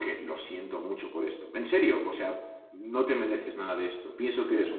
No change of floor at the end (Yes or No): No